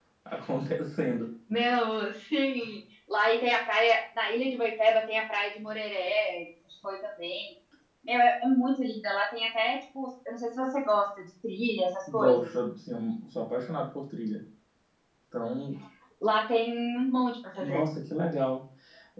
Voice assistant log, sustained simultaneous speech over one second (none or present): none